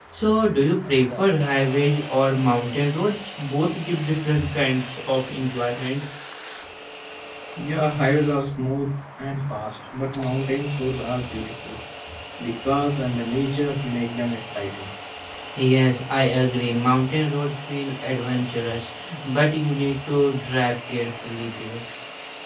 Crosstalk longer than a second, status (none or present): none